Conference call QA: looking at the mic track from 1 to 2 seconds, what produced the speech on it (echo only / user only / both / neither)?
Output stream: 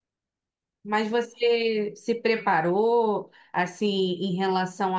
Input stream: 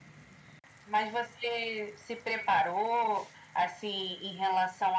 echo only